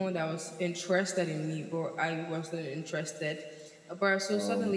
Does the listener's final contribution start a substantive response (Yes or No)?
No